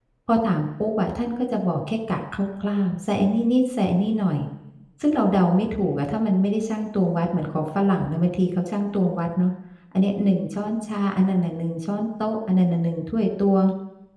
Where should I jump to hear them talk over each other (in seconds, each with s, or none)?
none